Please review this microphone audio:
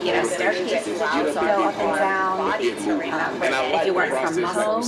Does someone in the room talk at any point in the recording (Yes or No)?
Yes